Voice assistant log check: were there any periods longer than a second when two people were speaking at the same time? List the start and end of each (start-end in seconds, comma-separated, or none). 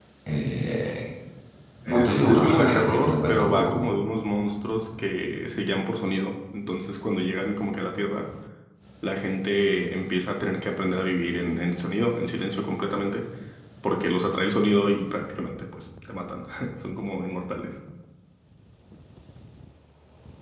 1.9-3.7